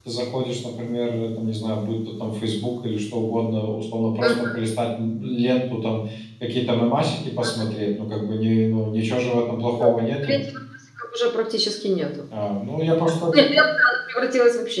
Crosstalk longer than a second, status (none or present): none